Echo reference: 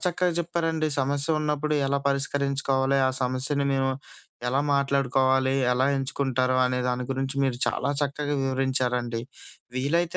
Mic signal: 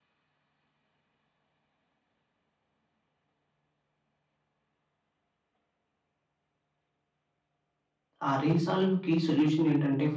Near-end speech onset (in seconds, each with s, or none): 8.3 s